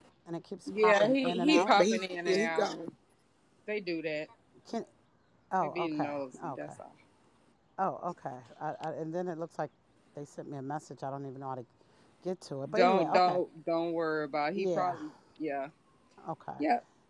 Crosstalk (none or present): present